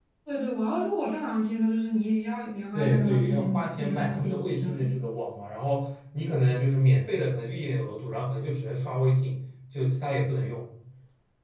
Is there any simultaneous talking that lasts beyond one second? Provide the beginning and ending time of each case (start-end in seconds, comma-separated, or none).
2.7-5.0